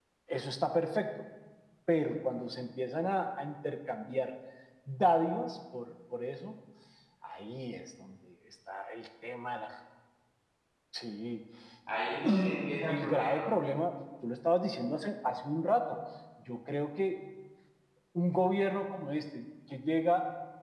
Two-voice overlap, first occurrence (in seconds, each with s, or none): 12.2 s